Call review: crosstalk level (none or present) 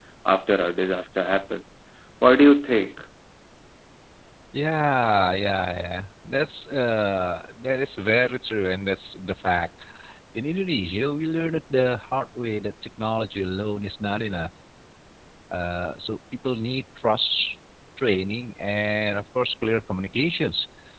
none